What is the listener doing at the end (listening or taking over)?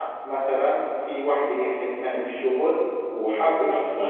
listening